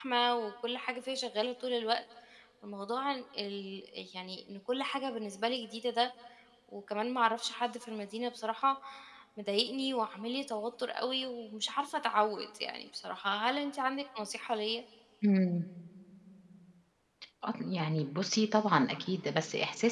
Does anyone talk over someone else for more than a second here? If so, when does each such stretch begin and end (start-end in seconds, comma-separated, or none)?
none